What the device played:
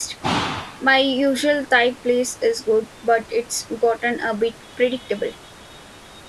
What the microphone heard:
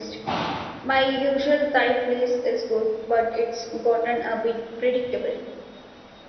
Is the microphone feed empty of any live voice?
Yes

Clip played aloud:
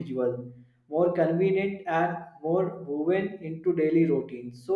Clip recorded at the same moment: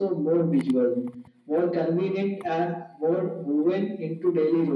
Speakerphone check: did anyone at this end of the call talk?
No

